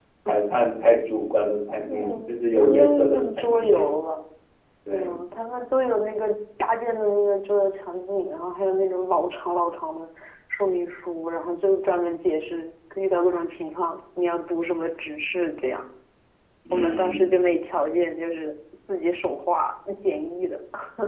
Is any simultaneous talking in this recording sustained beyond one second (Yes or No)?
Yes